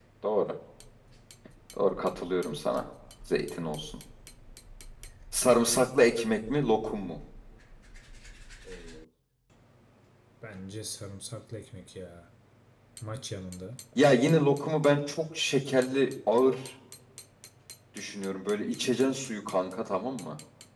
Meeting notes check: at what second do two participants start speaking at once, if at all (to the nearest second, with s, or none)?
none